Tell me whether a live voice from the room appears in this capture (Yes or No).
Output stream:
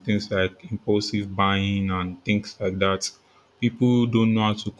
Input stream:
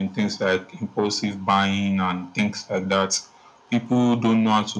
No